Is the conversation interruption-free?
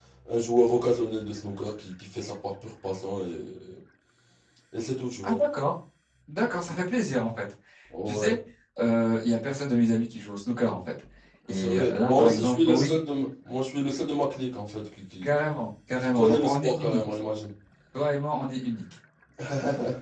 No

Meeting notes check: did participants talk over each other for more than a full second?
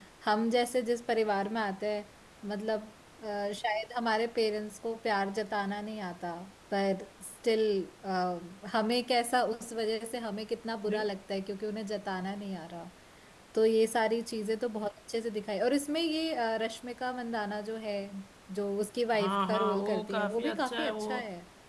Yes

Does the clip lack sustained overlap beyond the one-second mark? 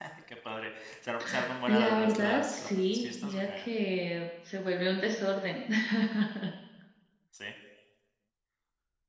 No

